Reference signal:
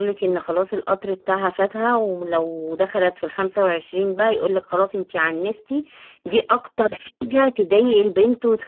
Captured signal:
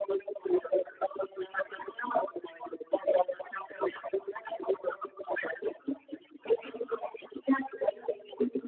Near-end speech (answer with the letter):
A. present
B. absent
B